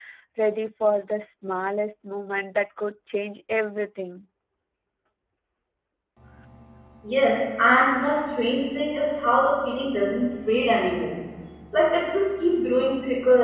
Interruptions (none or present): none